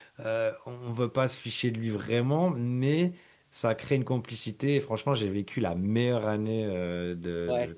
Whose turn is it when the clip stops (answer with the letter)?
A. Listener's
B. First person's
B